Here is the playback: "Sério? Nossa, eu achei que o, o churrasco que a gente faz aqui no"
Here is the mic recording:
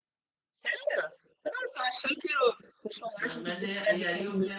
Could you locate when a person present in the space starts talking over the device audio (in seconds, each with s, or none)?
3.2 s